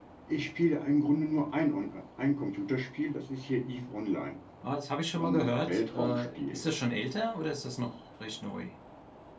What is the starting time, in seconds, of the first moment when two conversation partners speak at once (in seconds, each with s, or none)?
5.2 s